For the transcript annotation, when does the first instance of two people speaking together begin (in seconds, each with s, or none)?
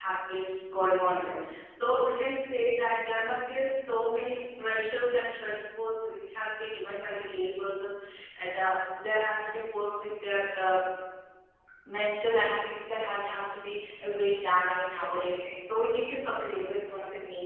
none